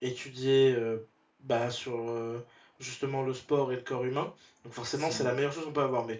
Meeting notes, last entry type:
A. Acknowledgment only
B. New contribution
A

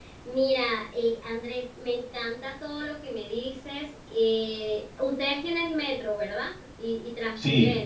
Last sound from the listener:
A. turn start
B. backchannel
A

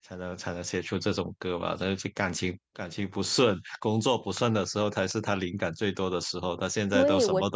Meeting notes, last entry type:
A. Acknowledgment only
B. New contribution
B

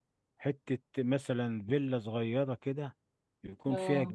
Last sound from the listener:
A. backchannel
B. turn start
A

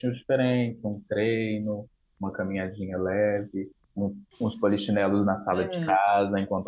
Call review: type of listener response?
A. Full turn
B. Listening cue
B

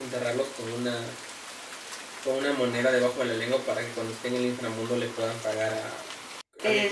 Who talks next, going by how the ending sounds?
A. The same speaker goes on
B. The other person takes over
B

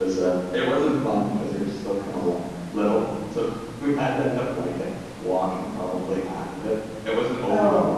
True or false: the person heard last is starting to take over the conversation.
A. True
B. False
B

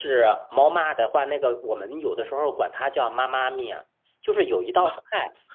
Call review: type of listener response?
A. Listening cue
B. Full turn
A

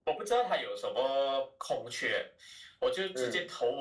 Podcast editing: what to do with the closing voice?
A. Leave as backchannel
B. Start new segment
A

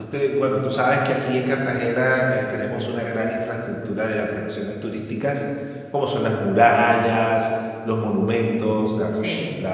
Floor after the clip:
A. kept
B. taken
A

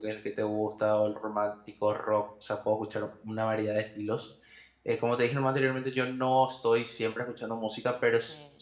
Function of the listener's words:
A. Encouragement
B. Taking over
A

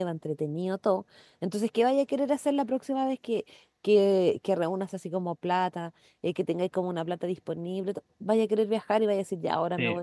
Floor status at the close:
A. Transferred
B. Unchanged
B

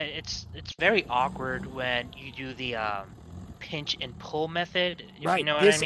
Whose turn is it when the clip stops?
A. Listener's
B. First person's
A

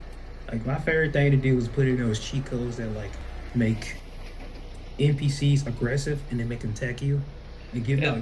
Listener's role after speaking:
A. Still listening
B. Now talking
A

